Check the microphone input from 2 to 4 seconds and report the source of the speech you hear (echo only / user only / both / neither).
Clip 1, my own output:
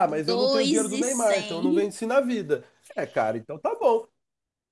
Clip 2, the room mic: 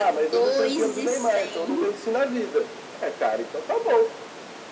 echo only